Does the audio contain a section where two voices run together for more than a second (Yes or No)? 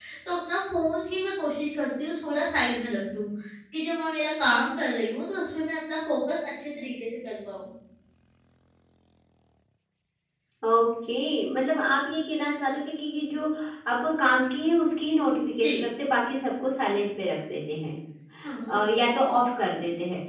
No